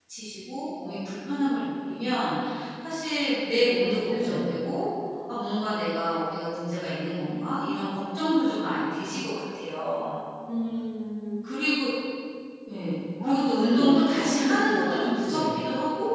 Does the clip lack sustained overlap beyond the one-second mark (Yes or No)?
No